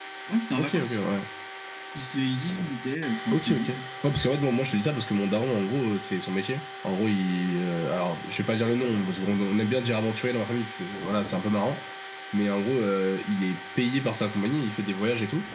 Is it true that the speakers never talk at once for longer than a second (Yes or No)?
Yes